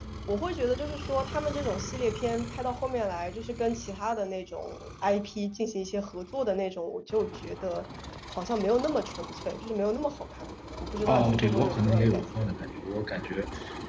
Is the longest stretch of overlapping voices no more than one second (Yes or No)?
No